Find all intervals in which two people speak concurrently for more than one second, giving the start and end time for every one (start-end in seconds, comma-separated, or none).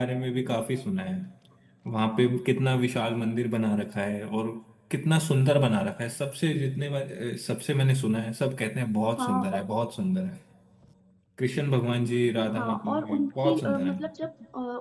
12.5-13.9